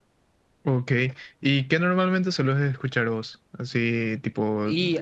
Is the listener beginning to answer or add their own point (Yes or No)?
No